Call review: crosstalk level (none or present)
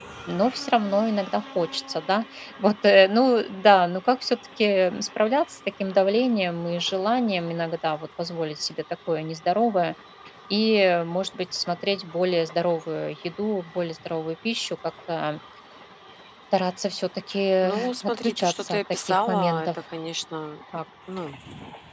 present